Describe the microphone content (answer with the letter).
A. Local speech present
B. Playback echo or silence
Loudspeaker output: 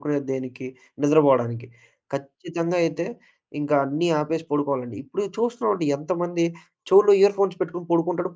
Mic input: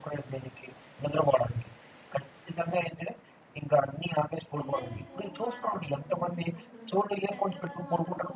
A